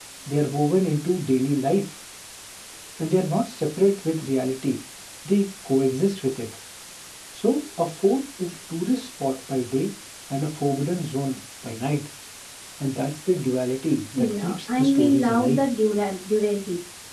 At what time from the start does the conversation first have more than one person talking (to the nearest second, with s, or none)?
14 s